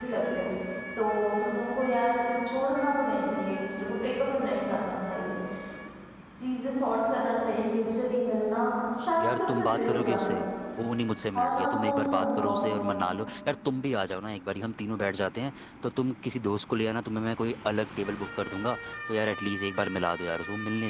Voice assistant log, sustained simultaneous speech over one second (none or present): present